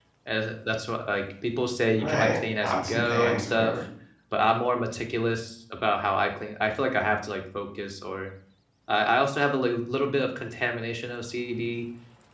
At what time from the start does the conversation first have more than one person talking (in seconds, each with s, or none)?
2.0 s